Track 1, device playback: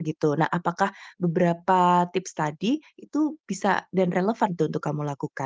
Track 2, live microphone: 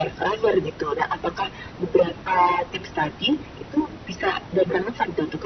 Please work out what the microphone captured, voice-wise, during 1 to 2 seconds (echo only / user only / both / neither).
echo only